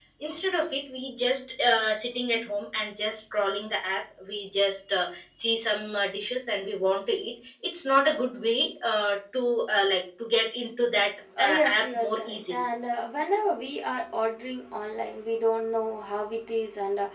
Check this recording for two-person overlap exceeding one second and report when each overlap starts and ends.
11.4-12.6

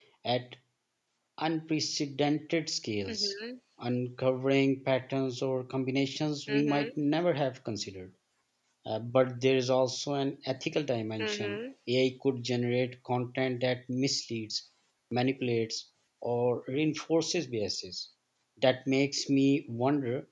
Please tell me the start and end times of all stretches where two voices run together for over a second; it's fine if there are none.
none

